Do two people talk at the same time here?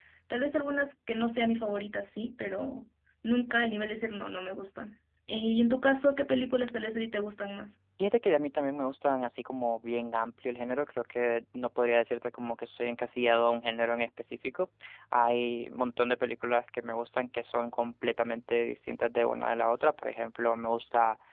No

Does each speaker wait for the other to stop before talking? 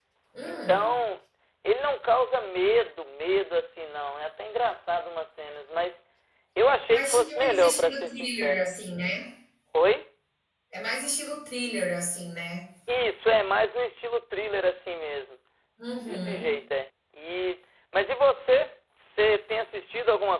No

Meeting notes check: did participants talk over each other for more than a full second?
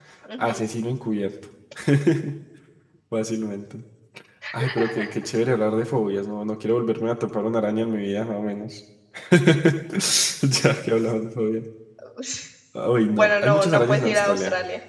Yes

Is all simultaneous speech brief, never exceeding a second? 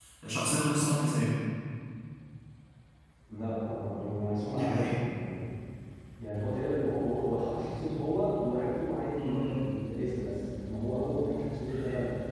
Yes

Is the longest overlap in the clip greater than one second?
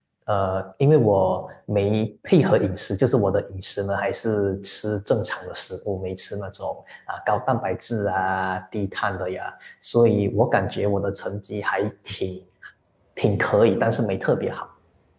No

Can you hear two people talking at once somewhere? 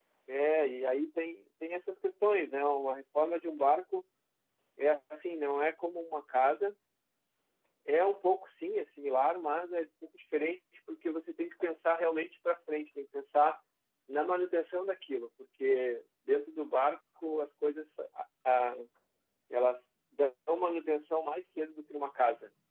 No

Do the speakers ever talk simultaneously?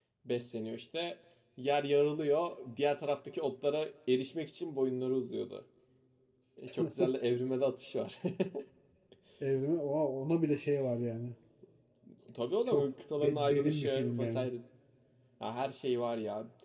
Yes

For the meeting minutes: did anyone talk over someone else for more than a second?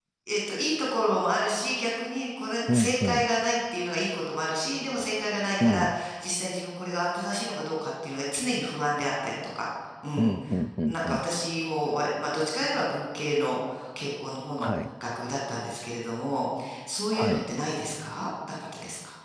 No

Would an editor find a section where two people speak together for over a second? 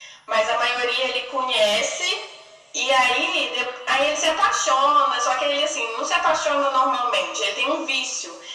No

